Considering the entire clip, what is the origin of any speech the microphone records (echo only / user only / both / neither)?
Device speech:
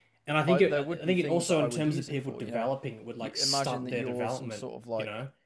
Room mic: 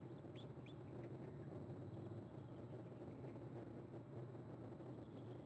neither